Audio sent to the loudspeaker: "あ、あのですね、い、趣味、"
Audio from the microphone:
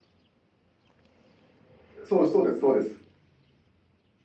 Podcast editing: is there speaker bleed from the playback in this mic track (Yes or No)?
No